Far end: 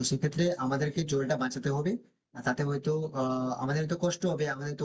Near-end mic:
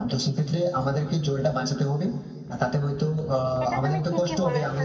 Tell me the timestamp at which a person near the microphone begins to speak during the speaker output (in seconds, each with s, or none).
3.6 s